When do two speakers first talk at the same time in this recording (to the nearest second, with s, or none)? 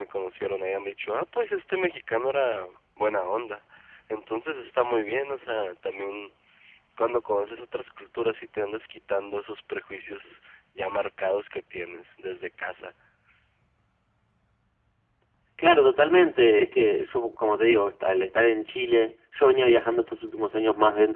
none